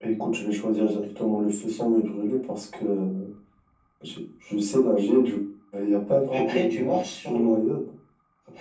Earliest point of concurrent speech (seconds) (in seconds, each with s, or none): 6.3 s